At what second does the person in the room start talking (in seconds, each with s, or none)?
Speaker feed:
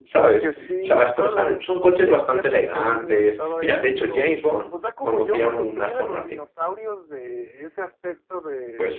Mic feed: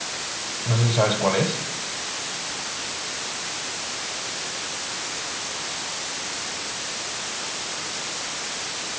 0.6 s